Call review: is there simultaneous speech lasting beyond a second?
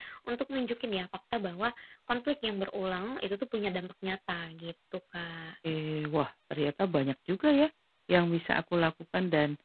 No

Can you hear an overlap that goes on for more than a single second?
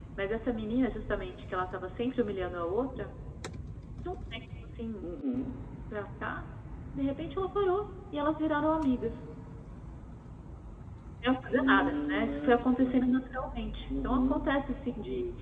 Yes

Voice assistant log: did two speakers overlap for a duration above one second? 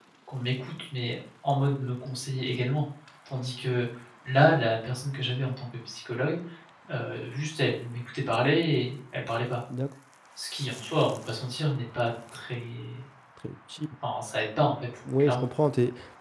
No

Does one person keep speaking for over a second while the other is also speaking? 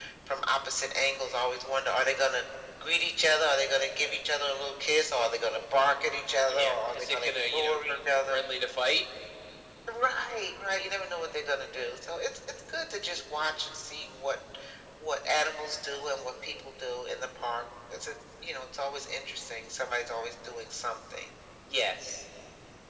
Yes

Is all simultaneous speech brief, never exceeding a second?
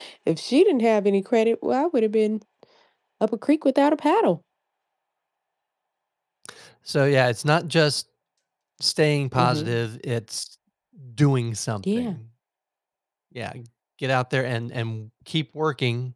Yes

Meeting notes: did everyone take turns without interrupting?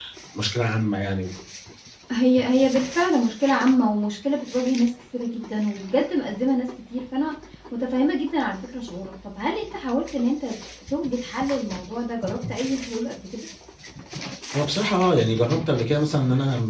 Yes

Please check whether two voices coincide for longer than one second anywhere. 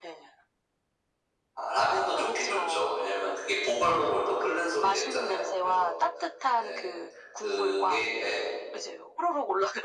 Yes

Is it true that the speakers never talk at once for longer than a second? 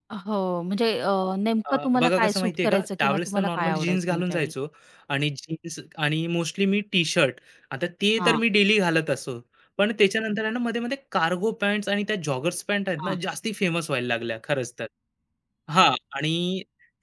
No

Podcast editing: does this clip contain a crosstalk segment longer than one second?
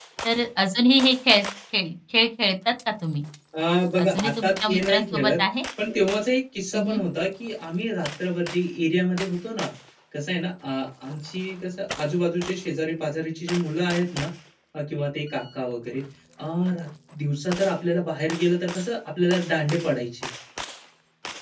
Yes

